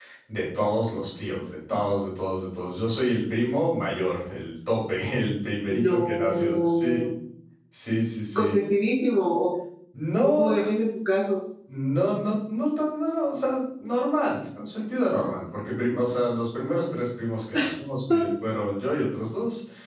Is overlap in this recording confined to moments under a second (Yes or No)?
No